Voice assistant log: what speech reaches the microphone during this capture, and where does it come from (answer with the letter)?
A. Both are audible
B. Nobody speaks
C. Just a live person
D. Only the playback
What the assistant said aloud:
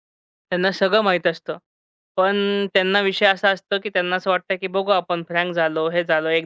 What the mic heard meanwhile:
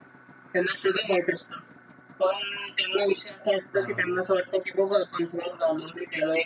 A